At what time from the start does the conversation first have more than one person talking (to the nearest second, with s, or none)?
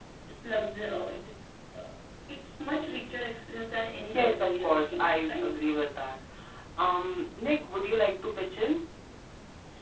4 s